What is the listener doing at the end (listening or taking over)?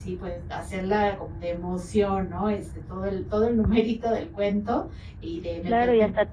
taking over